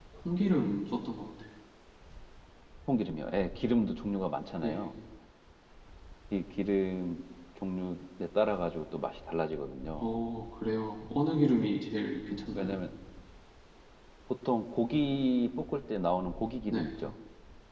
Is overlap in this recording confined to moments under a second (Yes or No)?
Yes